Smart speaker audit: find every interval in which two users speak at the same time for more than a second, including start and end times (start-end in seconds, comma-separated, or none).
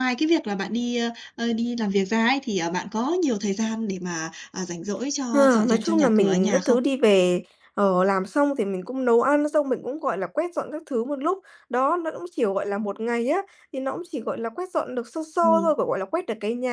5.3-6.8